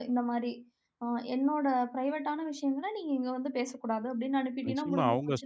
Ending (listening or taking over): taking over